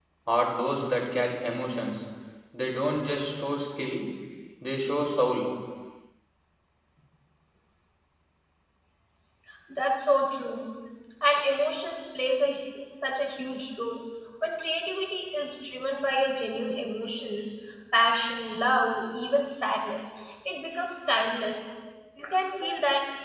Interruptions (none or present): none